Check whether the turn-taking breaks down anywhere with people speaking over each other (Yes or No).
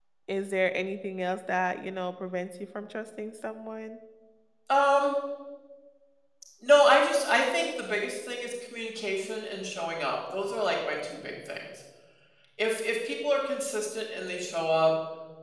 No